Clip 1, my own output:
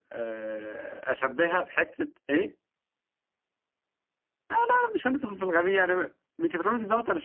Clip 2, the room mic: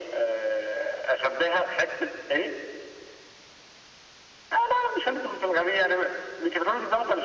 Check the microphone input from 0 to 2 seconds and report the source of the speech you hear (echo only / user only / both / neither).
echo only